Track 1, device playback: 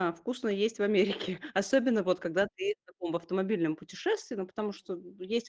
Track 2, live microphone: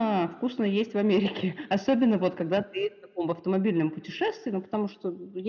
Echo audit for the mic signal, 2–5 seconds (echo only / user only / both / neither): echo only